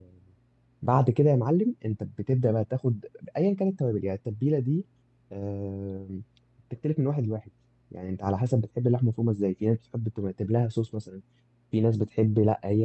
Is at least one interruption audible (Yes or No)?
No